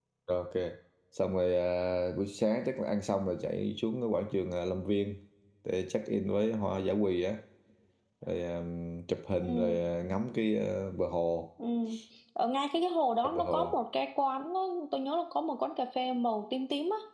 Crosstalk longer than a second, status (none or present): none